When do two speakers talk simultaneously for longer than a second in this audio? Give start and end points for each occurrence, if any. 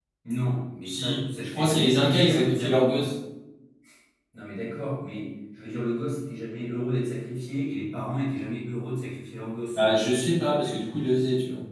0.8-3.1

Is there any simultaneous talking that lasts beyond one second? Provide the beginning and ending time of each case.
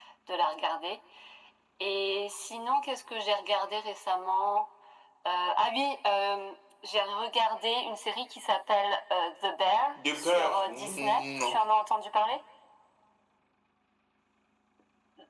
10.0-11.7

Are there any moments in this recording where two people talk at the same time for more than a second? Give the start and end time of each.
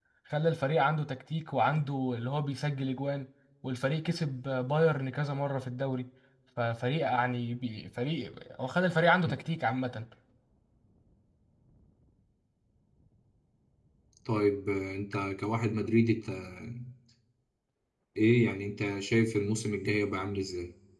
none

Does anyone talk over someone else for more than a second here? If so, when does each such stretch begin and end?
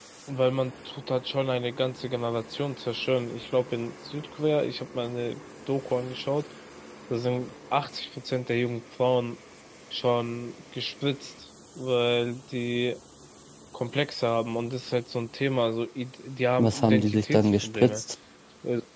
16.6-18.0

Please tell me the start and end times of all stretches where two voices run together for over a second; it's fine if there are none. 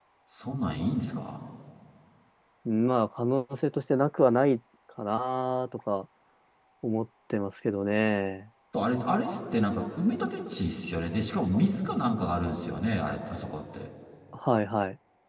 none

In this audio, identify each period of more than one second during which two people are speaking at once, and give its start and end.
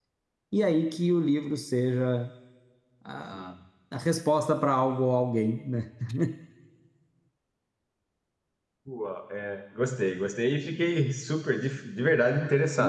none

